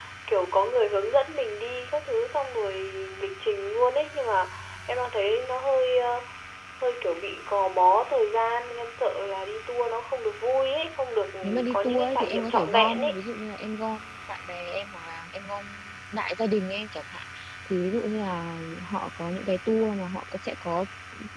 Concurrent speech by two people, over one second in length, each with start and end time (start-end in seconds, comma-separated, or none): 11.7-13.2